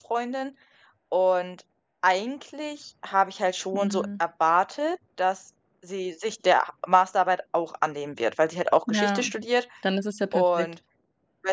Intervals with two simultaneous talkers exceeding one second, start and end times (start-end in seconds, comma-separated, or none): none